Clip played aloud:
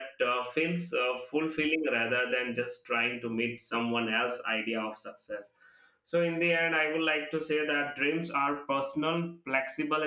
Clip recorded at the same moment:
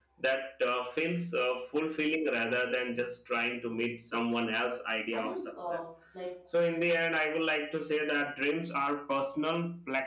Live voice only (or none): I think uh, like